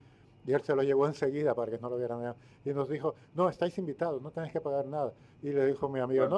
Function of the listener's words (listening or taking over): listening